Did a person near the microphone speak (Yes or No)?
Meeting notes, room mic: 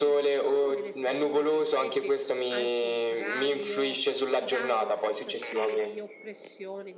Yes